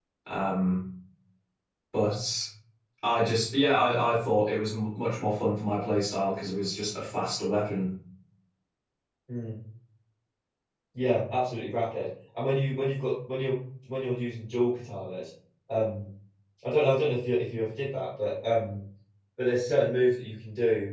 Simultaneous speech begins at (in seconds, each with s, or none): none